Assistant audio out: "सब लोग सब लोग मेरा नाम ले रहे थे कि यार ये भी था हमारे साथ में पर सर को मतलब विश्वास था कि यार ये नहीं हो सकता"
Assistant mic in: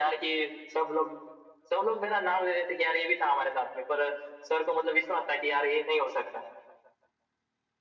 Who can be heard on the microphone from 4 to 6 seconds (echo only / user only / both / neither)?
echo only